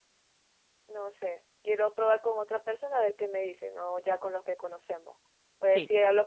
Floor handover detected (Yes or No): No